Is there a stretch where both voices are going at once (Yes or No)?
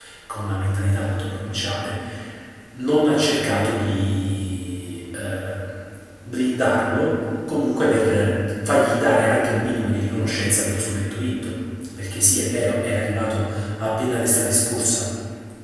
No